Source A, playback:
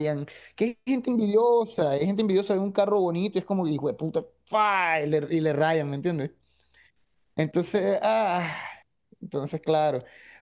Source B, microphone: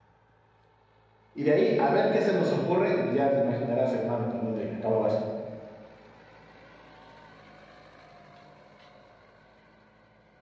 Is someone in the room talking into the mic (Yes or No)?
Yes